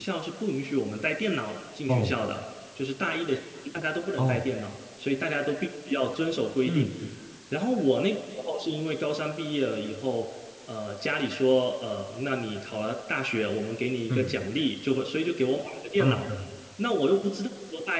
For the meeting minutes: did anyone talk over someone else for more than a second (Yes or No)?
No